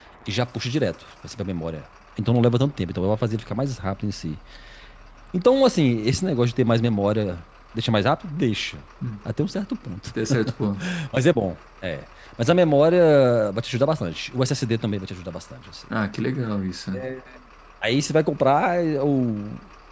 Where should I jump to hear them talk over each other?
none

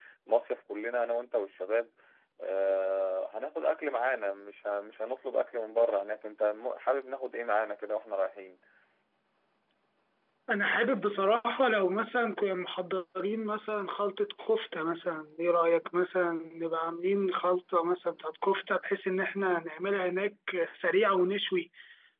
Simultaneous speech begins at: none

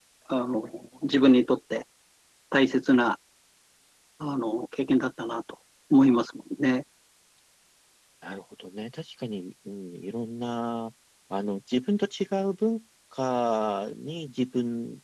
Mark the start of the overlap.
none

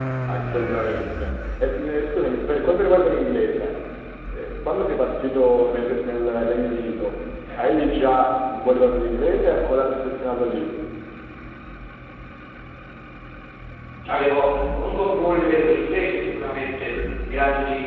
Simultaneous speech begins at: none

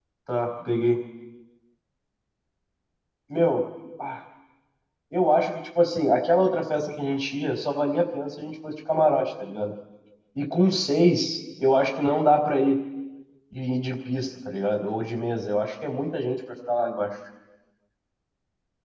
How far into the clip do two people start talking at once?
none

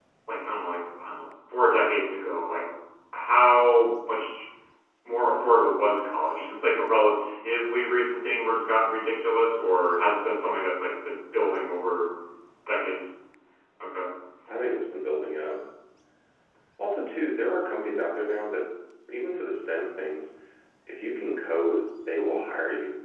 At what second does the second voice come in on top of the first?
none

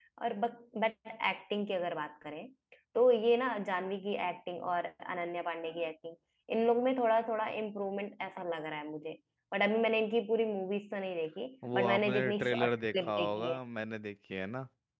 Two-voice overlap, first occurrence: 11.6 s

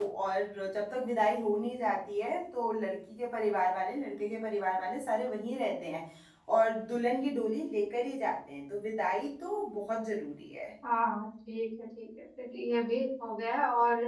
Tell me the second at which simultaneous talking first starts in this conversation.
none

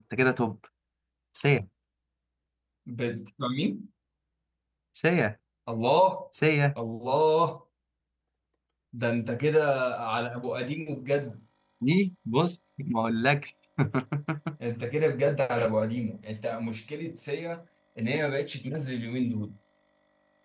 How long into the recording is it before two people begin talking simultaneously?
none

